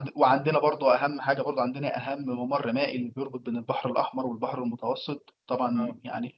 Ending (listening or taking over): listening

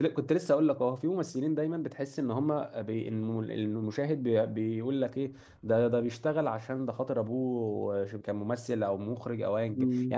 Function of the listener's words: taking over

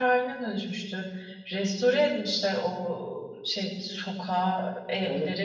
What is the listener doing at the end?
taking over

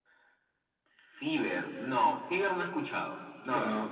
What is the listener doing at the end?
taking over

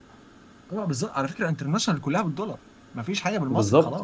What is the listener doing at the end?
taking over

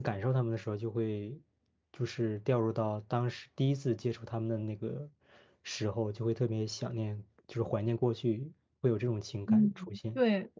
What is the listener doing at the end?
taking over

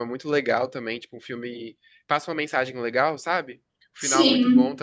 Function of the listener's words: listening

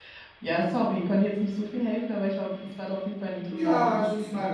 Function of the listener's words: taking over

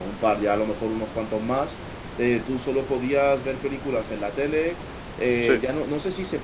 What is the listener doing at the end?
listening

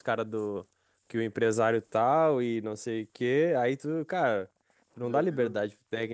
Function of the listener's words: listening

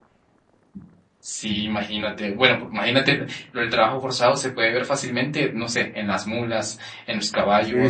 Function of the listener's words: taking over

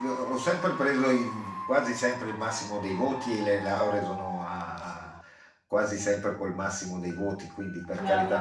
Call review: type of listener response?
taking over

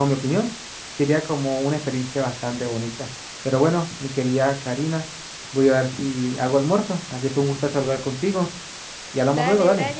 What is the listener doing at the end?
taking over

